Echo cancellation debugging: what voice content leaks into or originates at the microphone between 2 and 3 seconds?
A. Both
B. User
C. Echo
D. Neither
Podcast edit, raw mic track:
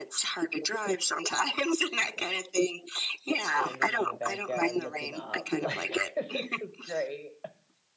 C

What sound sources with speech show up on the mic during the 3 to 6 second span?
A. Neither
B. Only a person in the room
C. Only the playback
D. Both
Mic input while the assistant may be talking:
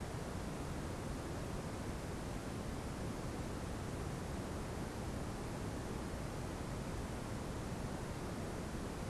A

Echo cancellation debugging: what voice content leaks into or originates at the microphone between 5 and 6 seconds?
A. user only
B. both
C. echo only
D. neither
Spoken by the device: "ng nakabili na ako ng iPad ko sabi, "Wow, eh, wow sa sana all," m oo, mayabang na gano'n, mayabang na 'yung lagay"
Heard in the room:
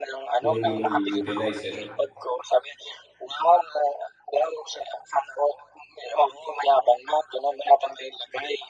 C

